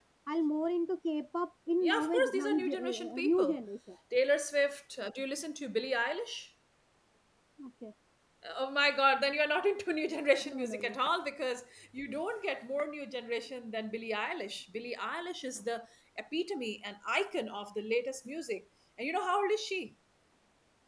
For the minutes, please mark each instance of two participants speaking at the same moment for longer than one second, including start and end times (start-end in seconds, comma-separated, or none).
1.8-3.6